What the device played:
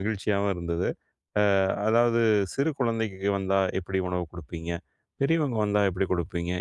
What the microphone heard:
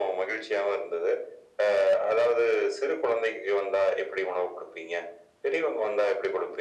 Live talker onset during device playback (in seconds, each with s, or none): none